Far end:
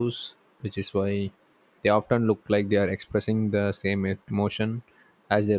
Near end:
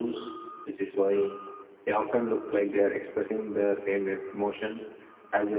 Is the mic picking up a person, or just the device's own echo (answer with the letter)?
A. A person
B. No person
B